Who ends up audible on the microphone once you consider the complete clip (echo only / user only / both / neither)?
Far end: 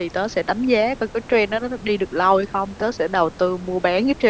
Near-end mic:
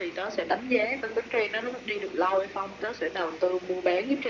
echo only